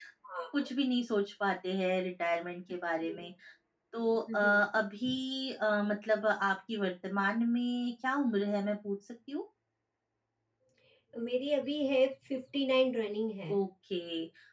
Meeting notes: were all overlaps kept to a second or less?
Yes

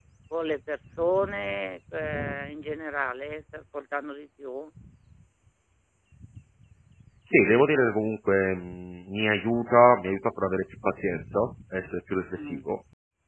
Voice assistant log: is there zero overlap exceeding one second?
Yes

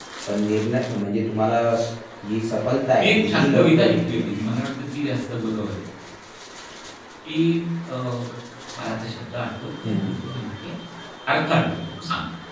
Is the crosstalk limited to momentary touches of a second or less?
No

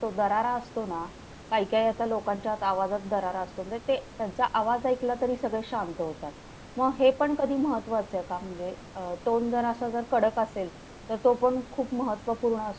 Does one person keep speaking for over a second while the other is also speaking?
No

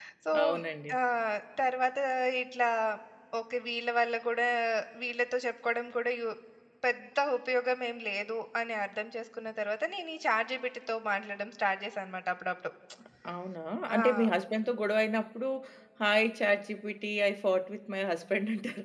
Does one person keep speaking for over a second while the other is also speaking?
No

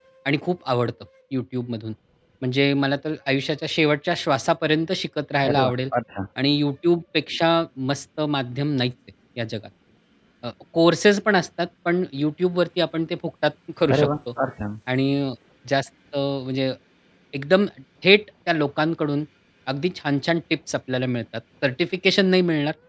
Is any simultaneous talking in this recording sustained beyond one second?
No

